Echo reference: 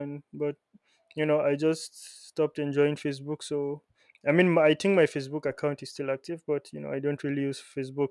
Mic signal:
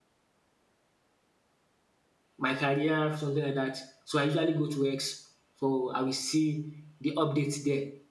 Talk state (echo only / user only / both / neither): user only